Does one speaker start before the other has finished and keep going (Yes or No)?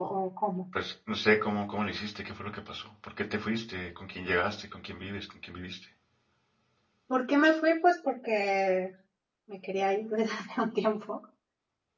No